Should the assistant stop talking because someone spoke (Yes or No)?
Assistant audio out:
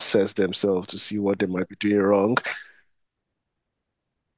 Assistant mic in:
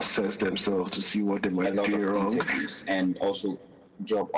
Yes